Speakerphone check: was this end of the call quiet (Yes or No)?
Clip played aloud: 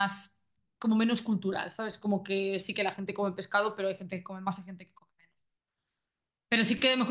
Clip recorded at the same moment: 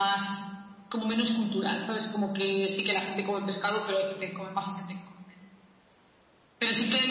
Yes